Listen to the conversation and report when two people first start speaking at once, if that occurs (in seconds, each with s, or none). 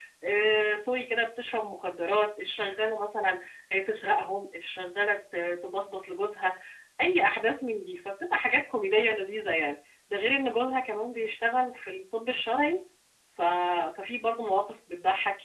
none